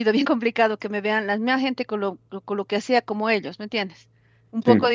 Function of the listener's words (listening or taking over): listening